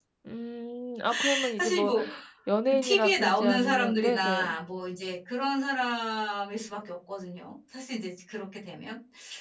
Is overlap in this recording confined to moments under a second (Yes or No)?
No